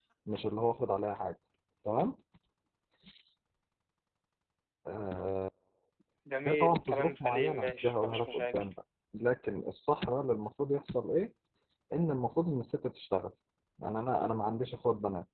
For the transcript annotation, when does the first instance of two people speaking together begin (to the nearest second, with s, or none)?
6 s